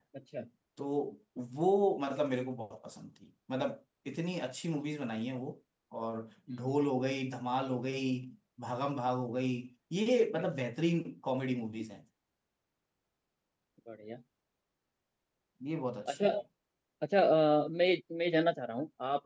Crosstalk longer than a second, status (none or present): none